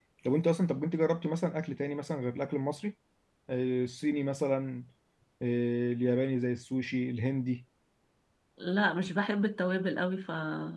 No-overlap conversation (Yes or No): Yes